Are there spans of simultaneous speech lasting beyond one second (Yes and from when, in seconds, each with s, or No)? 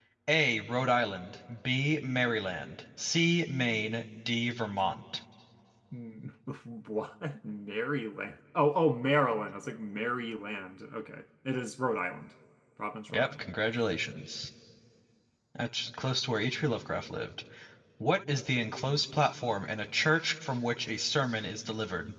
No